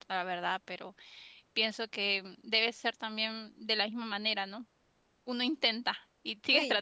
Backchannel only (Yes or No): No